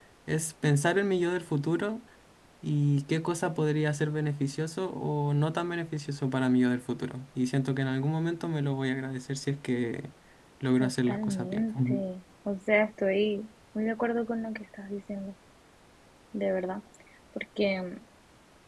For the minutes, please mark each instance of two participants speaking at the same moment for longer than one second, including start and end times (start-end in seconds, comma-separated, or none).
10.8-12.0